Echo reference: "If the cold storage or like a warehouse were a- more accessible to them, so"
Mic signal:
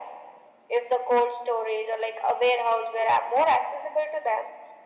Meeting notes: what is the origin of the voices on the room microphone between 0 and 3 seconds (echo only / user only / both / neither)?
echo only